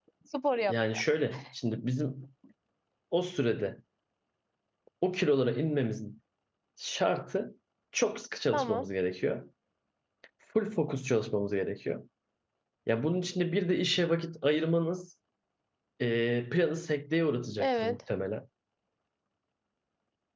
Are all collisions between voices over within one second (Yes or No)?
Yes